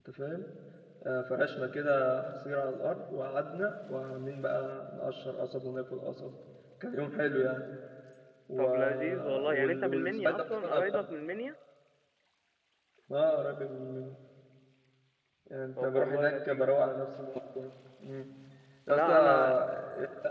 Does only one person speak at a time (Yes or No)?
No